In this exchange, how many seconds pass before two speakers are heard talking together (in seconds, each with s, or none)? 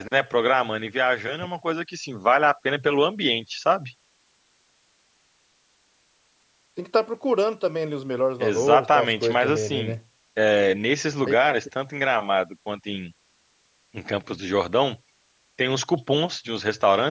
8.4 s